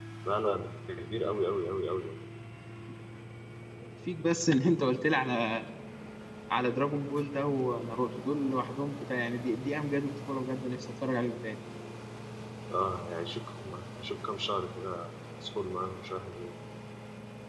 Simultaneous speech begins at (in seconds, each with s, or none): none